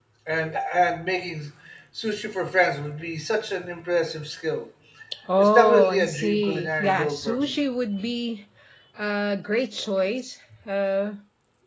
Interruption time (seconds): 5 s

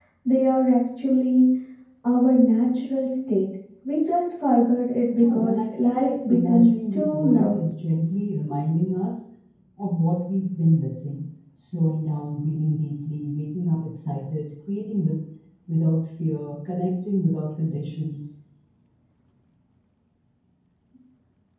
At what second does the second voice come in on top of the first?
5 s

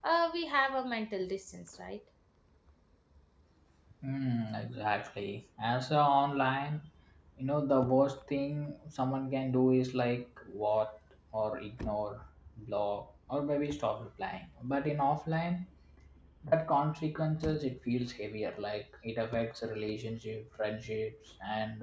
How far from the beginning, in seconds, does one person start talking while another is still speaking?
none

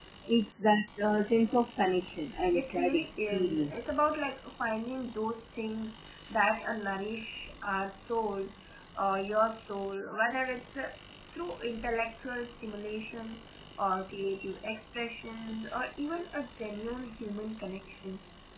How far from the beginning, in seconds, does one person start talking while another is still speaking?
3 s

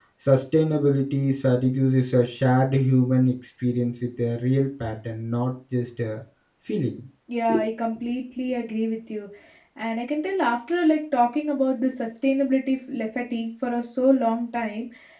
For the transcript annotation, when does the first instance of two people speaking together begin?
none

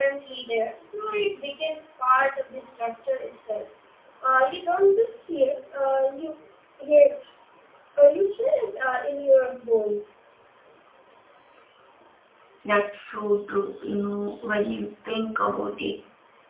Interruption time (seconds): none

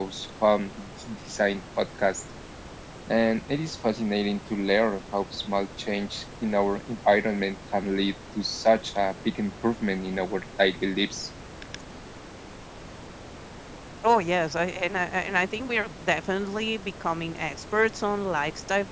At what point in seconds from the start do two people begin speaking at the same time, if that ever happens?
none

